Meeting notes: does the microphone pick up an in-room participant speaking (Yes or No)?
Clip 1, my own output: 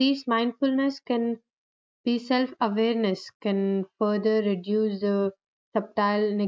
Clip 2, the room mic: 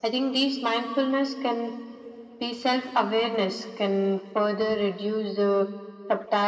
No